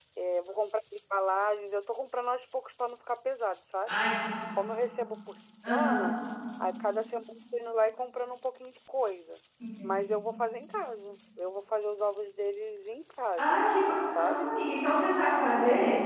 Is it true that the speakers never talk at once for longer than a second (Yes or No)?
Yes